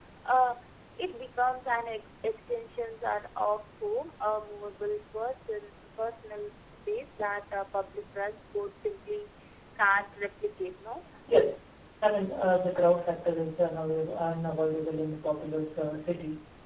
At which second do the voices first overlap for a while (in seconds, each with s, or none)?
none